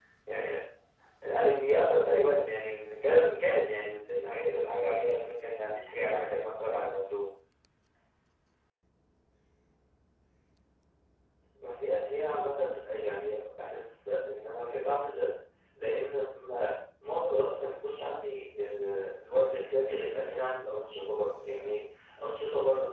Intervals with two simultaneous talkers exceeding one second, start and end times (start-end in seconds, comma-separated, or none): none